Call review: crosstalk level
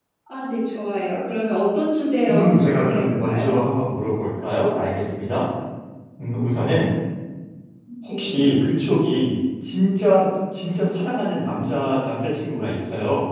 present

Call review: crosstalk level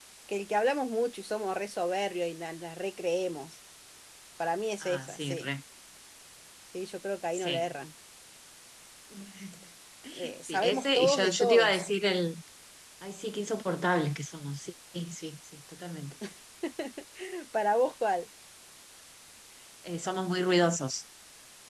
present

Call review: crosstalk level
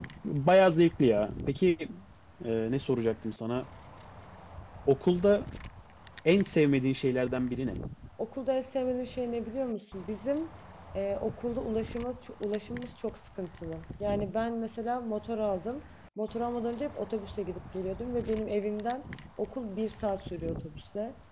none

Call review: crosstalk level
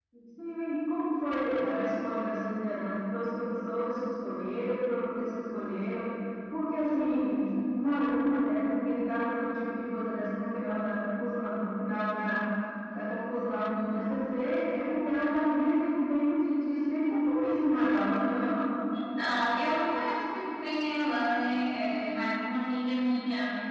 none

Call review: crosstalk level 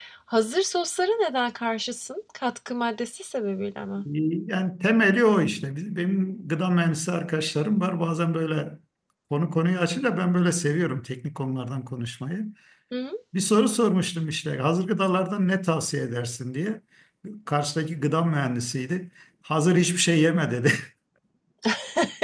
none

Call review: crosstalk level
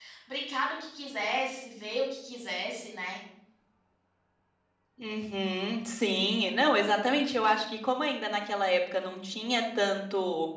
none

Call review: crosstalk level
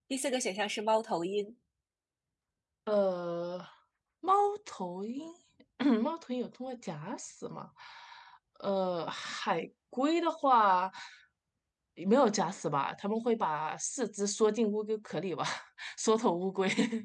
none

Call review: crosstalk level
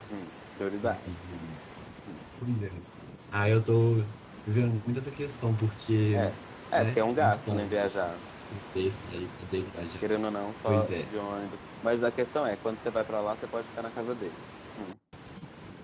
present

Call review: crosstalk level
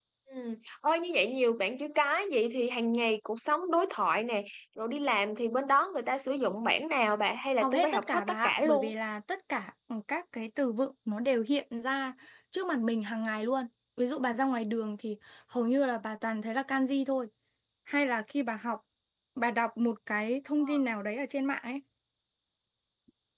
present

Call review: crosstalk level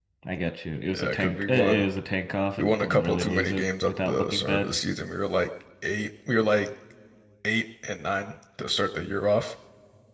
present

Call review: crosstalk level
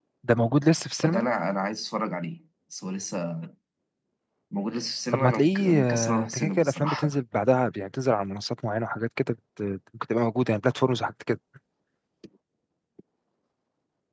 present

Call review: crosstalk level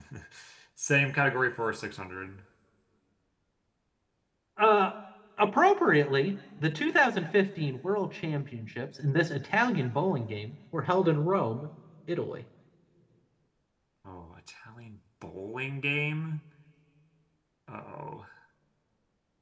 none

